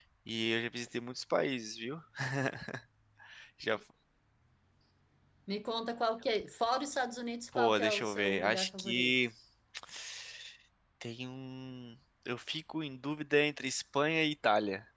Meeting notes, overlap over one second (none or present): present